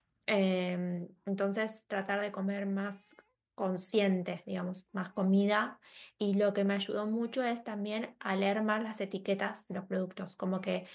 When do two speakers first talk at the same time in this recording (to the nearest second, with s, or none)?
none